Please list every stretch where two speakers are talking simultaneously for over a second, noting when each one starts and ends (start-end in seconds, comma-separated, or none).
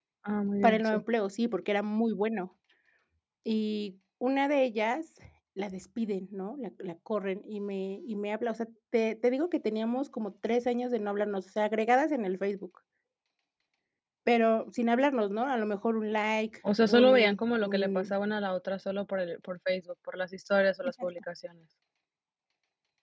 16.9-18.1